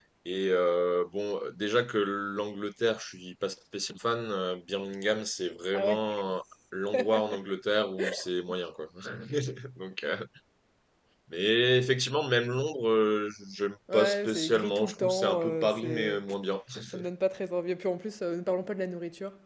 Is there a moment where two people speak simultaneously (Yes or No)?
Yes